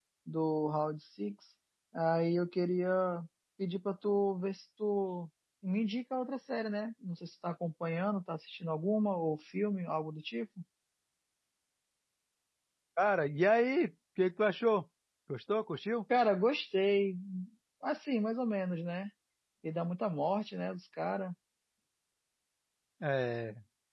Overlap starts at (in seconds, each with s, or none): none